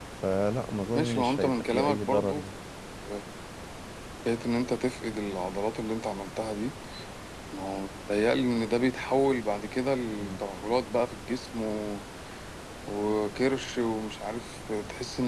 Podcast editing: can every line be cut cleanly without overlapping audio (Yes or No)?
No